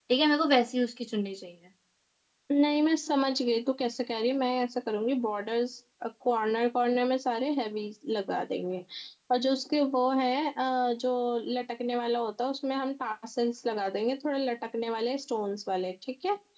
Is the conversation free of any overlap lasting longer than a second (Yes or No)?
Yes